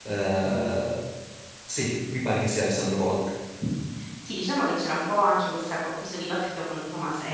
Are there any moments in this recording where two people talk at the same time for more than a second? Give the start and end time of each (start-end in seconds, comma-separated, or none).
none